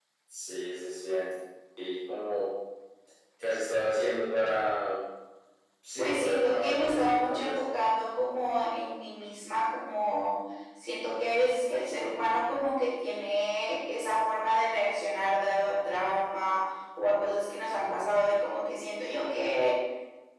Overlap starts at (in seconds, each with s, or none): 6.0 s